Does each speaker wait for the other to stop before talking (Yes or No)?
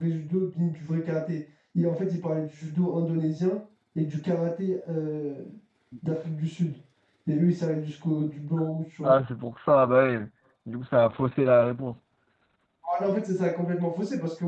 Yes